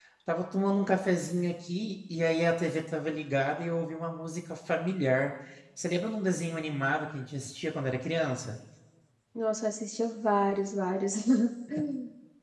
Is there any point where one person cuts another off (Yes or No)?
No